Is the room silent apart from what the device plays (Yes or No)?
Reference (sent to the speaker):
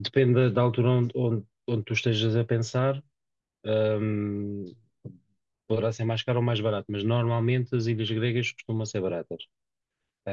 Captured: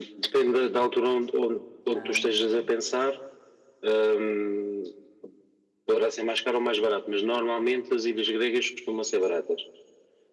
No